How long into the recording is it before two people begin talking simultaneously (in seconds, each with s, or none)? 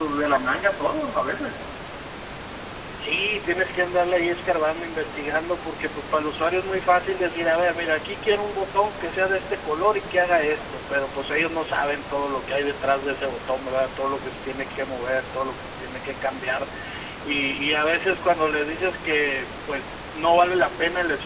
none